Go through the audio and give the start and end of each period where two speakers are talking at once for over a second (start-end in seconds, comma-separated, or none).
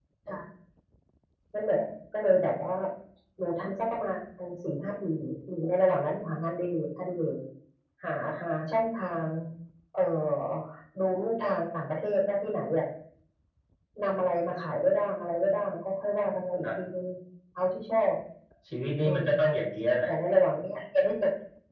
none